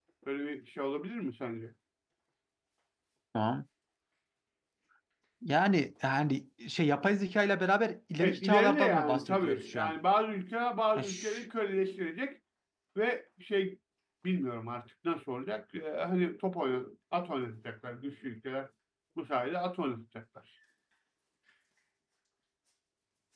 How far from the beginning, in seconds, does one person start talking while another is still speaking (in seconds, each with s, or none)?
8.2 s